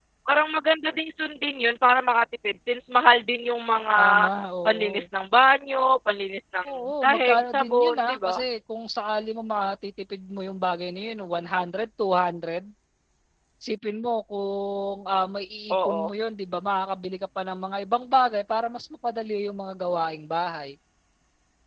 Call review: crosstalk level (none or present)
present